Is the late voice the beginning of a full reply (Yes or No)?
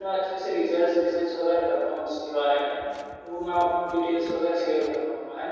No